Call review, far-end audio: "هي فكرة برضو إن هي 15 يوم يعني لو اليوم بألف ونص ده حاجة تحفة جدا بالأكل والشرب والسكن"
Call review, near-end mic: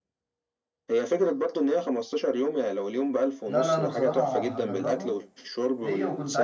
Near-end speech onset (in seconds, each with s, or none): 3.5 s